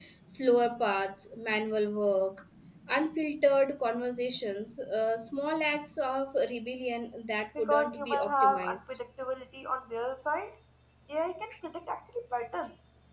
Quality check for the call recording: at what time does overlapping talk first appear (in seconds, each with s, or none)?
7.5 s